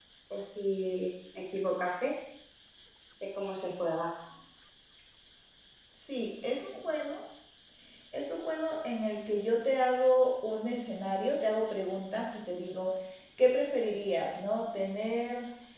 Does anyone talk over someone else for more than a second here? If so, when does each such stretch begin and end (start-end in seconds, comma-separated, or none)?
none